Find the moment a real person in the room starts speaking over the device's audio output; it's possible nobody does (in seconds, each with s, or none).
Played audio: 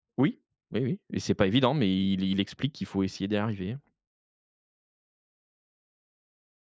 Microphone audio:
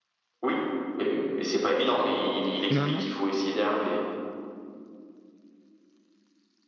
2.7 s